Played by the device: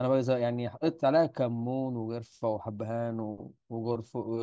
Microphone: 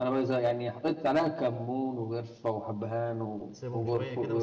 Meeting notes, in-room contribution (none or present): present